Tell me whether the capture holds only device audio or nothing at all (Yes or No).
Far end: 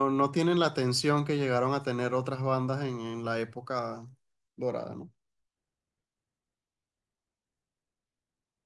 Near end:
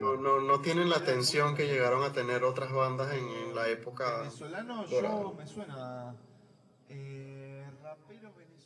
No